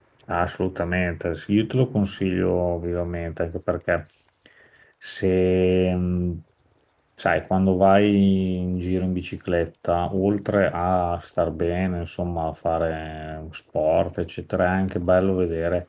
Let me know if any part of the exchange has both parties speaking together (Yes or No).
No